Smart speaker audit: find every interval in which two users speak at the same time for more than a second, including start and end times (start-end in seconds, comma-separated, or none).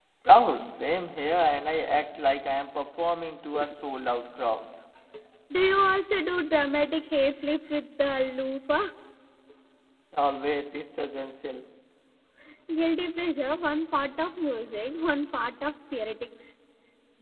none